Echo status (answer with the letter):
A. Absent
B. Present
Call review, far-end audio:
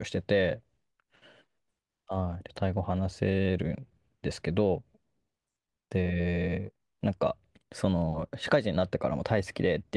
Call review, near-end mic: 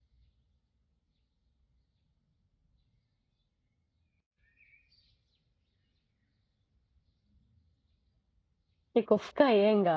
A